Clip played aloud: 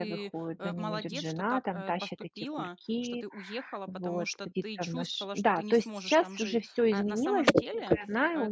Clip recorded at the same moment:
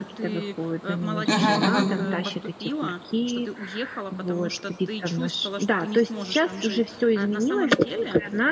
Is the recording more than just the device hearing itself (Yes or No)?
Yes